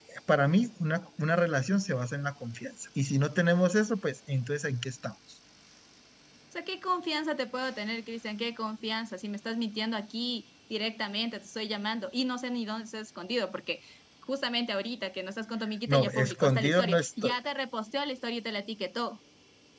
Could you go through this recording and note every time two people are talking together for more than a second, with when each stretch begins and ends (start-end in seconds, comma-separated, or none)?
15.9-17.4